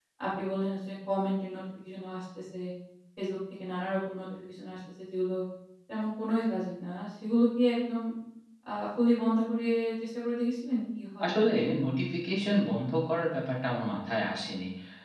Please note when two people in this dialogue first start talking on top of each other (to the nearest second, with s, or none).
none